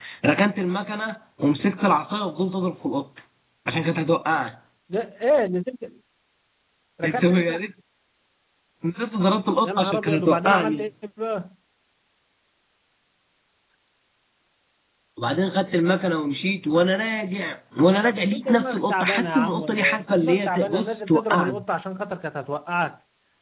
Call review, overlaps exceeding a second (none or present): present